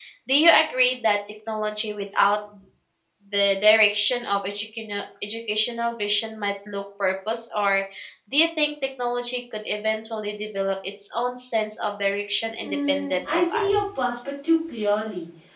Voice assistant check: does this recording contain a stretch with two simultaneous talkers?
Yes, from 12.6 s

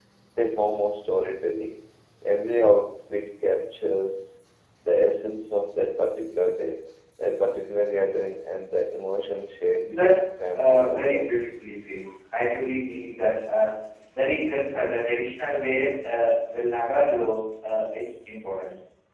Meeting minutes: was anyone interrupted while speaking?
Yes, from 9.8 s

